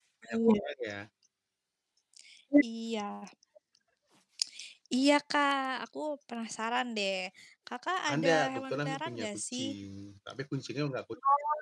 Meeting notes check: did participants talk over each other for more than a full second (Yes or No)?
Yes